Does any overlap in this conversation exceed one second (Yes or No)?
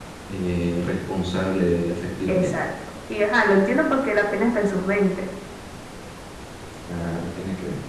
No